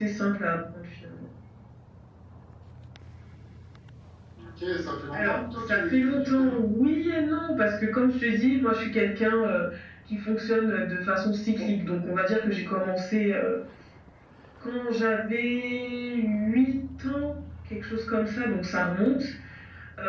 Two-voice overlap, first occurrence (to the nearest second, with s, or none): 5 s